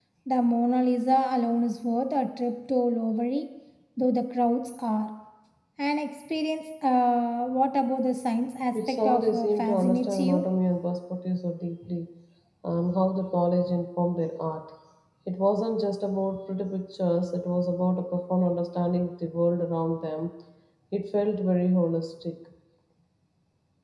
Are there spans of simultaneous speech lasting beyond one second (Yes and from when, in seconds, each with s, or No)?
Yes, from 8.8 s